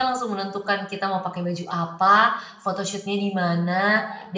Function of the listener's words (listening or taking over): listening